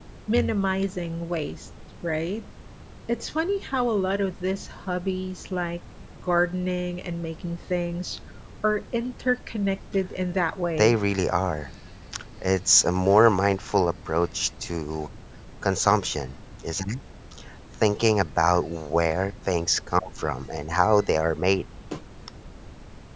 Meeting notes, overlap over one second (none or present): none